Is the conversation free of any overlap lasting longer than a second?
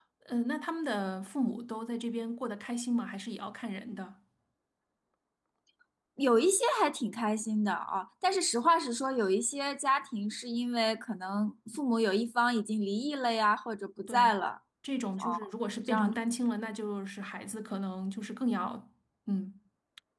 Yes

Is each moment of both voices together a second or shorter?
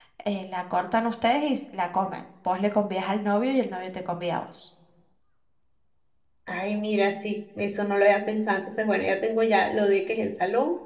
Yes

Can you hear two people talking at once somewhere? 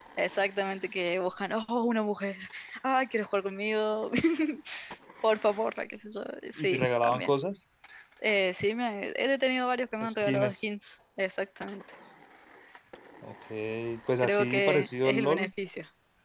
Yes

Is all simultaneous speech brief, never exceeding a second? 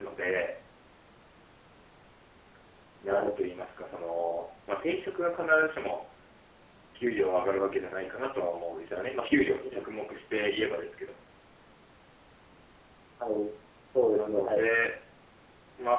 Yes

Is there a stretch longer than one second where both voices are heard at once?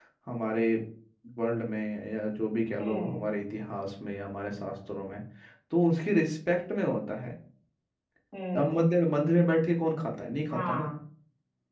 No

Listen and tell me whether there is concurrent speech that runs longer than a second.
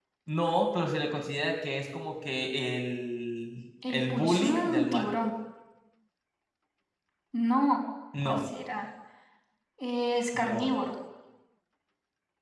Yes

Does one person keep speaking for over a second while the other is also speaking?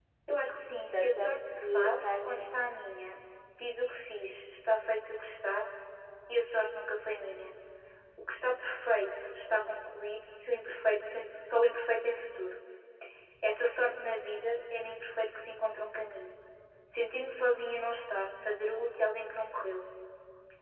Yes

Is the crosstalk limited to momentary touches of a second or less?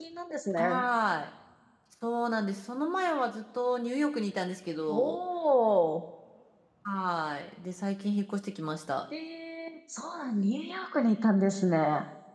Yes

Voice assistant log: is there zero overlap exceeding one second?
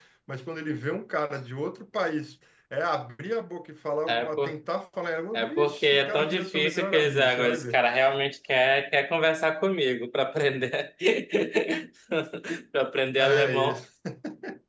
No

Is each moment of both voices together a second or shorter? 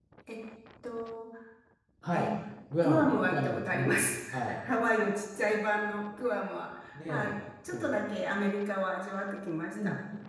No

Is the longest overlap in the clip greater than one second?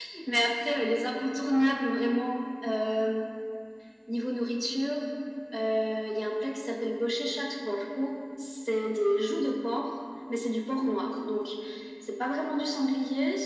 No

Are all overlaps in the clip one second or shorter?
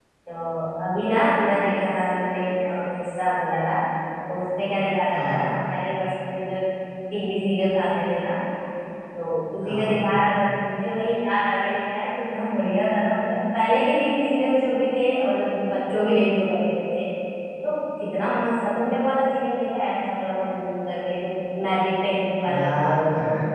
Yes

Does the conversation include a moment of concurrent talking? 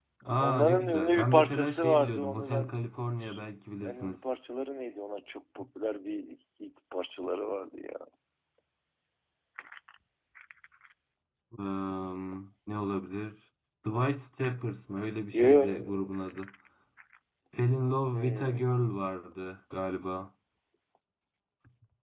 Yes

